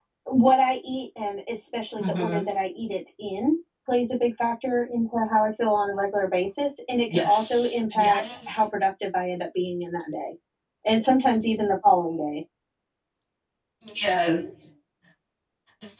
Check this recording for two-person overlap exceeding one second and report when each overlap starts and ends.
7.1-8.6

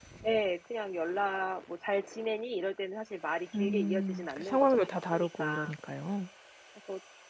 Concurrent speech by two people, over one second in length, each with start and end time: 3.5-5.5

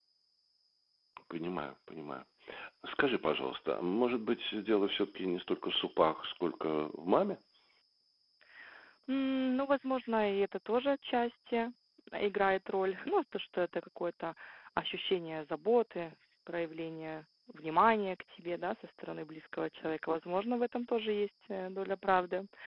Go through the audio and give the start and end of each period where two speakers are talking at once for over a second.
none

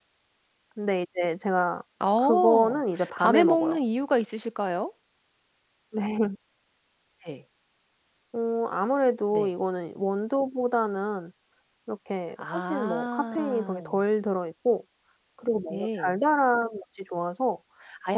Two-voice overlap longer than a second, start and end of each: 2.2-3.8, 12.4-14.0

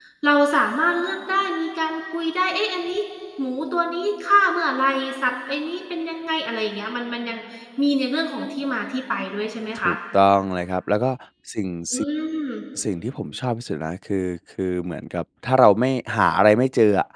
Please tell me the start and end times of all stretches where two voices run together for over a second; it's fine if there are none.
none

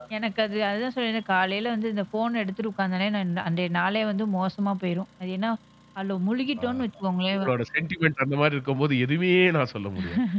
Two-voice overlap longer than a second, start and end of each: none

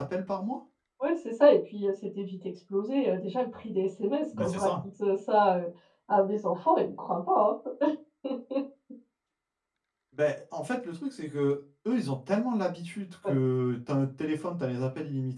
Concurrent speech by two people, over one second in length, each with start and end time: none

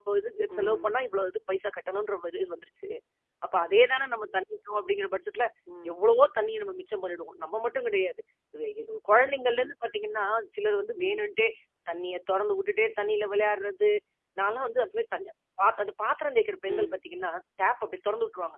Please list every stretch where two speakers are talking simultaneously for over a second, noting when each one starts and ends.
none

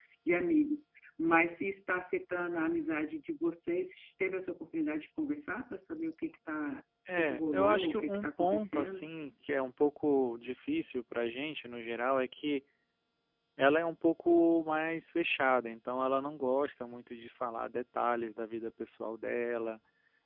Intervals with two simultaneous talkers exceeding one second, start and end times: 7.2-9.1

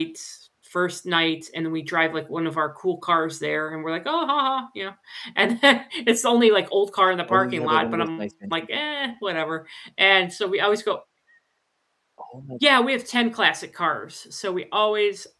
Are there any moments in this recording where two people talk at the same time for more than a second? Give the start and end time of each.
7.3-8.5

